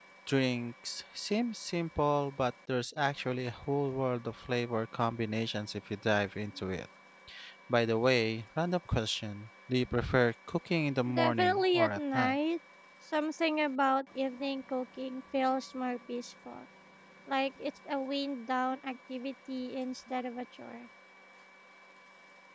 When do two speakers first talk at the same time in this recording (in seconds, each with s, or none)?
11.1 s